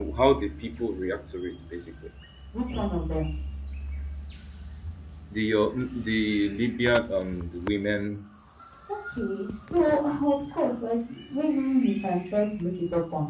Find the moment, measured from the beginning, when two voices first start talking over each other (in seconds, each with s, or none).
none